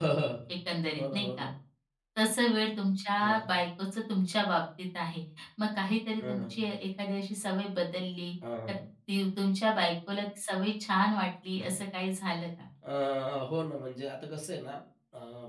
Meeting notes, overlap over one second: none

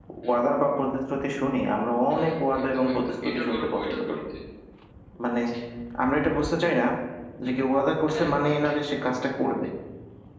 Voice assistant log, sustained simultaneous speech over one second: present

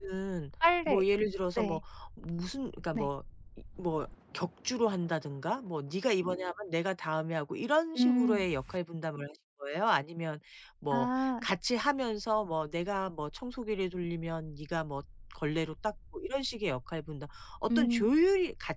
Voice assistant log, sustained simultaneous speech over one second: none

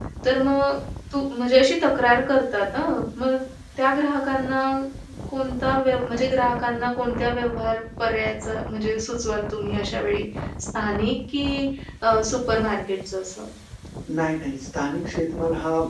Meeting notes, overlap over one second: none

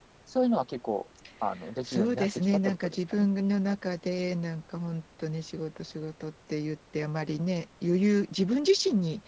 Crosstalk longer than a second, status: present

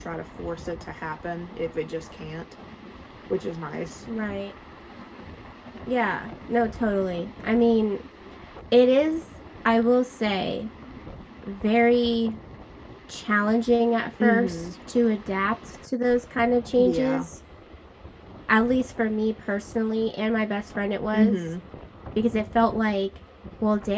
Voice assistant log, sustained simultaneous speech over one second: none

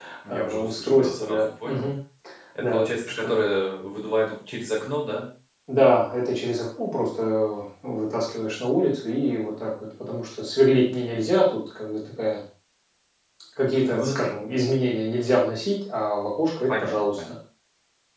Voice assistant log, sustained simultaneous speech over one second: present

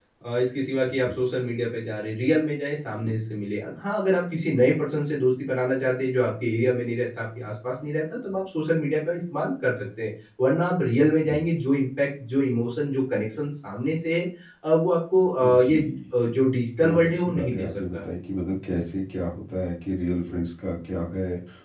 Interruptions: present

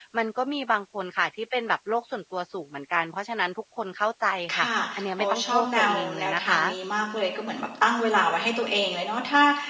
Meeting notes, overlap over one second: present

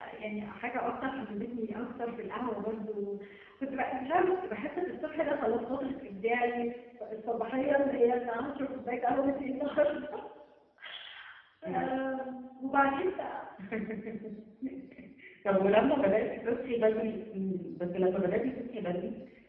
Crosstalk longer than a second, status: none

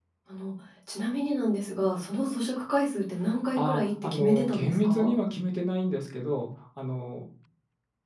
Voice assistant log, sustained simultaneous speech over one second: present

